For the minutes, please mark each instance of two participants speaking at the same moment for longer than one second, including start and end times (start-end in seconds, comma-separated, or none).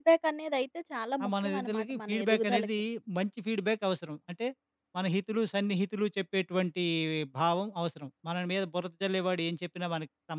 1.2-2.7